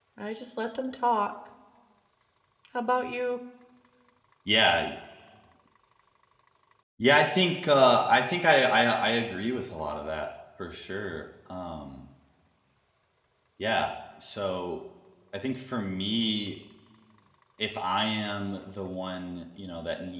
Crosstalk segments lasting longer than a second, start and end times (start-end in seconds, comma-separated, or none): none